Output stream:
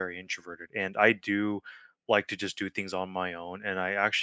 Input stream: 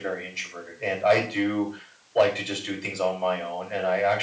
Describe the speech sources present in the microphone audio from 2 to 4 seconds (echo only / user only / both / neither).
echo only